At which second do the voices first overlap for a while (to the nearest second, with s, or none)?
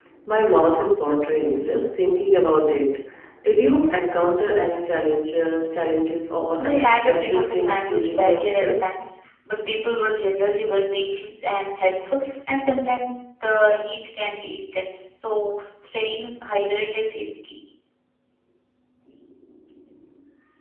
7 s